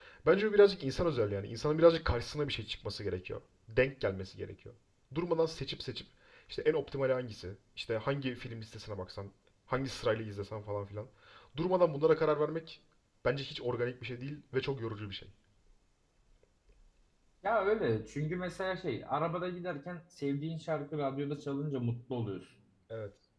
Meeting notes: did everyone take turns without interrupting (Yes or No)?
Yes